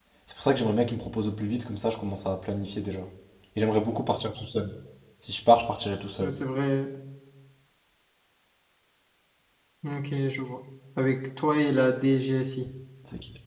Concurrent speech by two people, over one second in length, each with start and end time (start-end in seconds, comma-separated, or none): none